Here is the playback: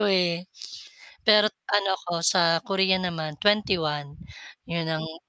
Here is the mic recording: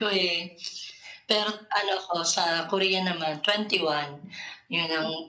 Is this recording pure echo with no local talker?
Yes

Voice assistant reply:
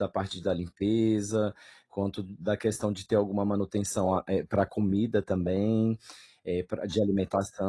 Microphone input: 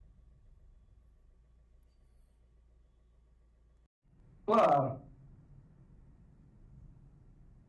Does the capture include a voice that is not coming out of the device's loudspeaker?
Yes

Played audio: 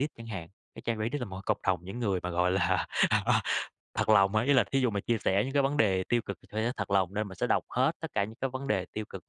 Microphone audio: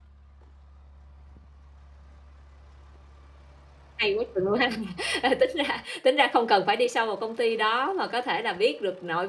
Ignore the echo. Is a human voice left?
Yes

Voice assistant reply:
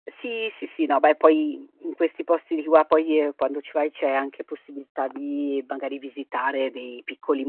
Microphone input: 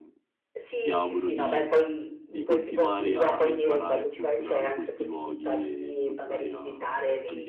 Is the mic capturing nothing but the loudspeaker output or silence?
No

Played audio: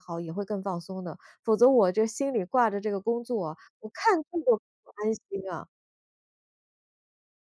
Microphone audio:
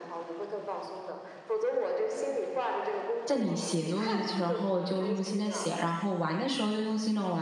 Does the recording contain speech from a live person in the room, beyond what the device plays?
Yes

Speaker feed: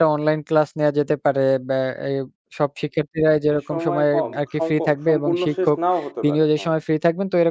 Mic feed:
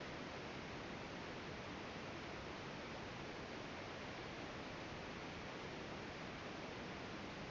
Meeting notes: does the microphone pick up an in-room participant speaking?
No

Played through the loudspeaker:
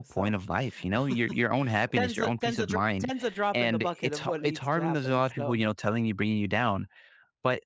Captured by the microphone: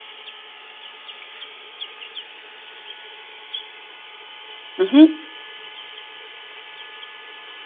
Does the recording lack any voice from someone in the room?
No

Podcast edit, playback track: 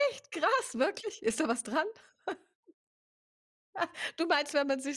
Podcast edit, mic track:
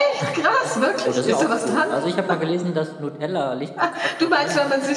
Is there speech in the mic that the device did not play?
Yes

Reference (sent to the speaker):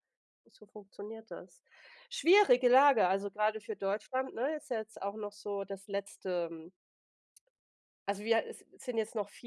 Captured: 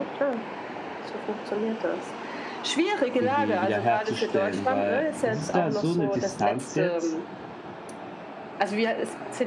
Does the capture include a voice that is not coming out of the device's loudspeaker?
Yes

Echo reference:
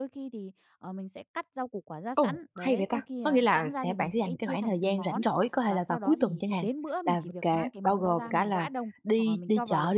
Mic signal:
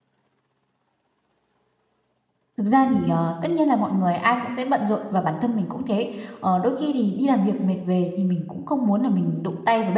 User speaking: Yes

